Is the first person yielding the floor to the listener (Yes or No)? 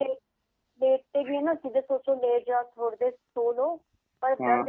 No